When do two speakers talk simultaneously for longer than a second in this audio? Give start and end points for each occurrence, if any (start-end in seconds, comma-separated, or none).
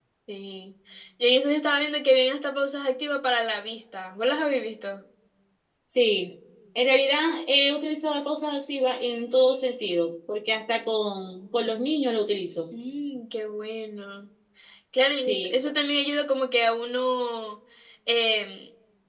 none